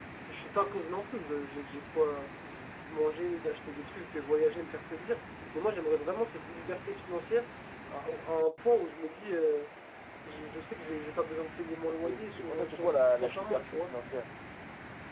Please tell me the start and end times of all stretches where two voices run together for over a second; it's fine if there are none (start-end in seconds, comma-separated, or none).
11.9-13.9